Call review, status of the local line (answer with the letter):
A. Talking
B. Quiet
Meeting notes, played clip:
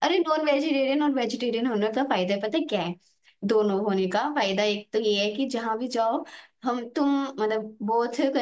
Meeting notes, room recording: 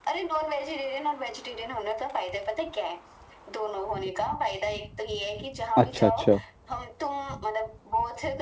A